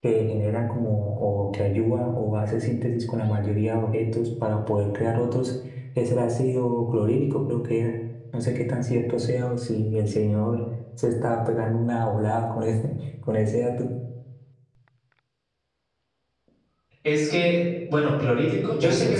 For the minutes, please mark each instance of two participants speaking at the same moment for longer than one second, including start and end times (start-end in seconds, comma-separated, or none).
none